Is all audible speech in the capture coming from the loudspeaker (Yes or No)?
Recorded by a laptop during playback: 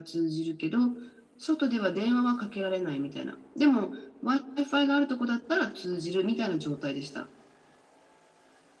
Yes